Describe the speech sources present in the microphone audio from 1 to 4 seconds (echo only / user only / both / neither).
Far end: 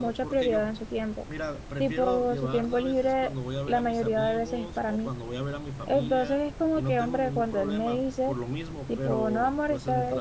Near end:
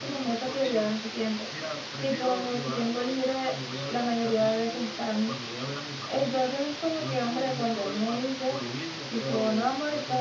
echo only